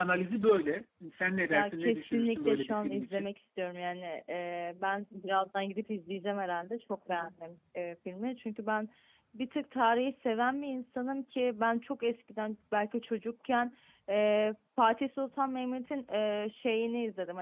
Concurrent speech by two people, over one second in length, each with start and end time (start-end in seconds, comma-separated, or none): 1.5-3.3